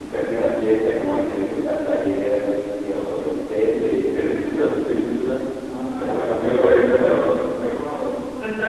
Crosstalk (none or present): present